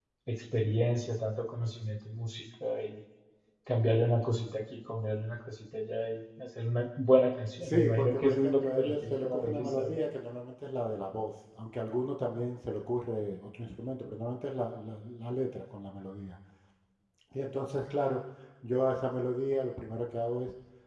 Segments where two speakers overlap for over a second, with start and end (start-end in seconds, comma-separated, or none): 7.6-10.0